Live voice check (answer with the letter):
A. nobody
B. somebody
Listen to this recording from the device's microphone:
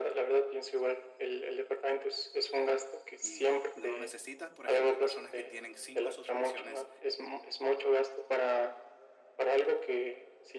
B